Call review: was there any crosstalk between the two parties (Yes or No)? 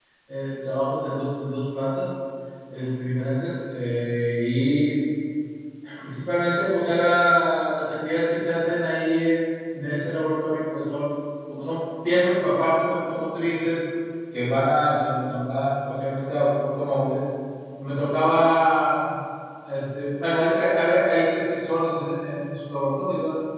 No